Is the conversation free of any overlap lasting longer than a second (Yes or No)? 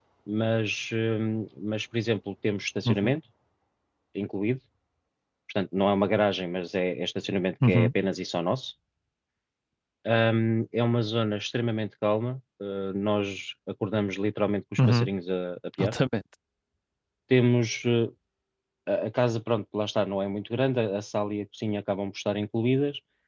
Yes